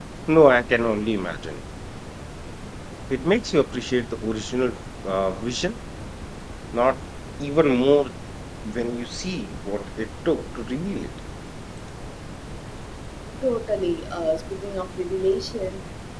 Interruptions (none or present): none